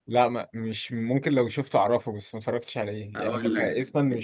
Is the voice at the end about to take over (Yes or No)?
Yes